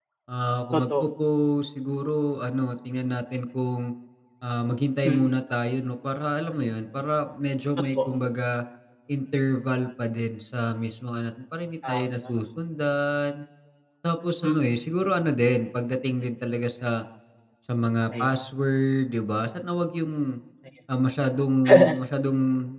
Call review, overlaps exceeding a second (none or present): none